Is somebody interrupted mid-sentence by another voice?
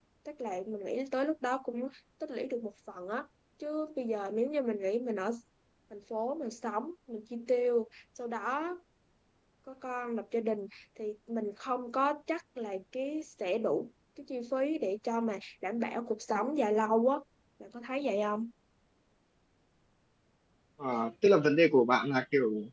No

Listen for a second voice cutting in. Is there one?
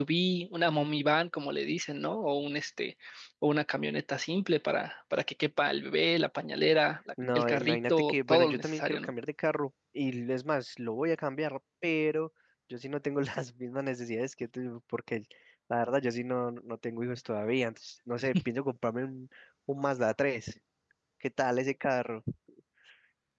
Yes, from 7.2 s

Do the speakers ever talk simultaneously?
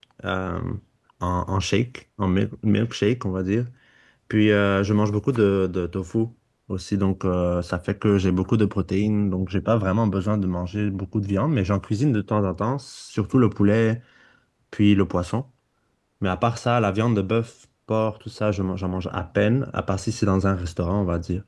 No

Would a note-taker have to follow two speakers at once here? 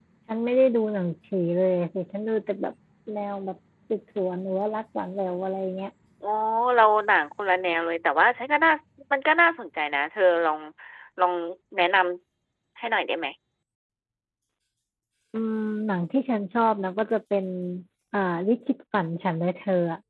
No

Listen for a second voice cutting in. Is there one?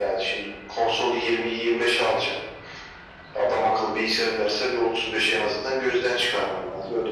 No

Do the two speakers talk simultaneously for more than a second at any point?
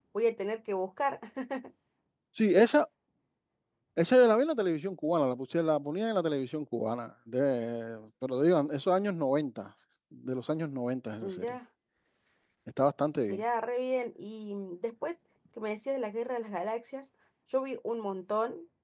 No

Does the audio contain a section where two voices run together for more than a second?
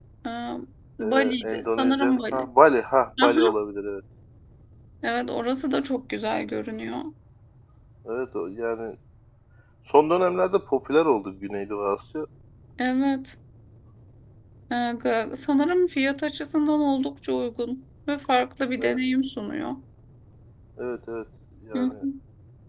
Yes, from 1.0 s

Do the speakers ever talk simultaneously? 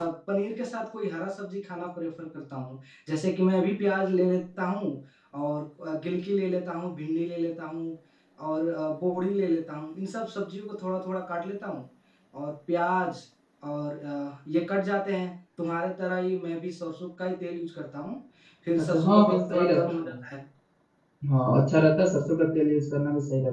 Yes, from 18.8 s

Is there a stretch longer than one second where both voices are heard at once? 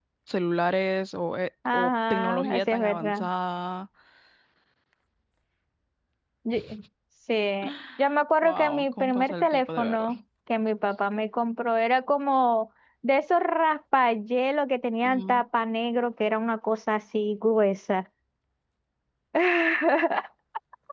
Yes, from 1.7 s

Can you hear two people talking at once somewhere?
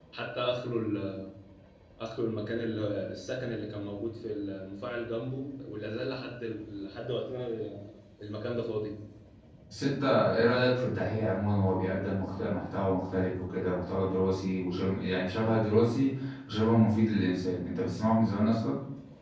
No

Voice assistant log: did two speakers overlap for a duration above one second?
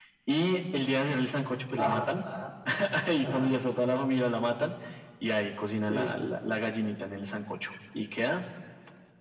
No

